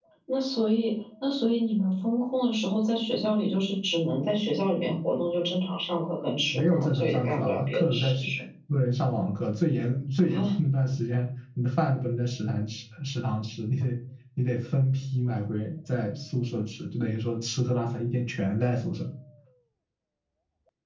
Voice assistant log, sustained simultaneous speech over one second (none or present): present